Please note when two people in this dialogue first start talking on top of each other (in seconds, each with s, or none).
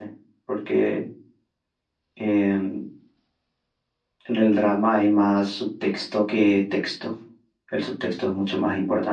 none